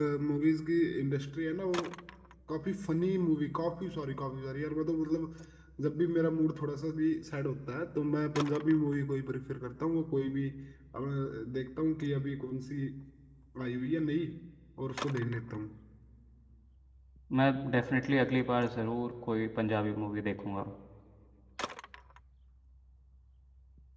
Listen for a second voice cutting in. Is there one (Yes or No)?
No